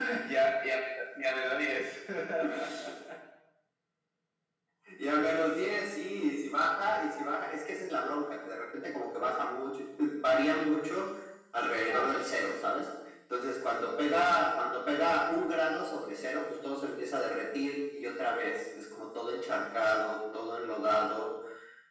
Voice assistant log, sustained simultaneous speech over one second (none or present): none